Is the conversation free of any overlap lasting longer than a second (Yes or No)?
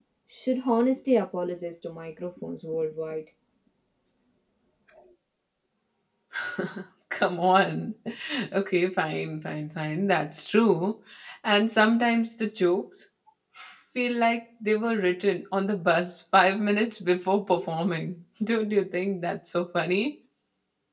Yes